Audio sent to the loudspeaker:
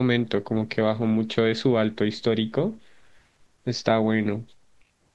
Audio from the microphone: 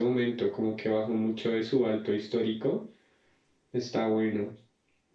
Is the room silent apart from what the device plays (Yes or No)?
Yes